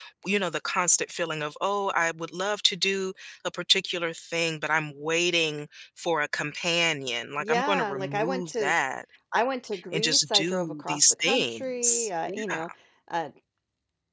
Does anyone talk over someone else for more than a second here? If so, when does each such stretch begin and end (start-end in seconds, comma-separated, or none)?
7.4-8.7, 9.9-12.6